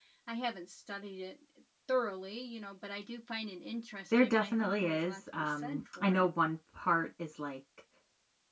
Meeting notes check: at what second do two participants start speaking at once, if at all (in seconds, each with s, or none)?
4.1 s